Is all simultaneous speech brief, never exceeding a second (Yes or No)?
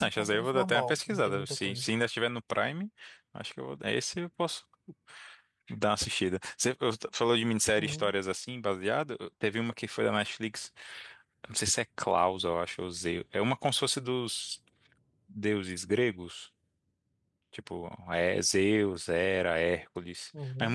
No